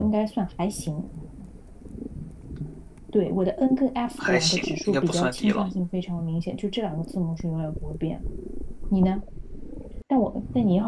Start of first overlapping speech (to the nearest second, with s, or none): 4 s